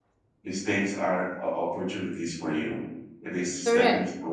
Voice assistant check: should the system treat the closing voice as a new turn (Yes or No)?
No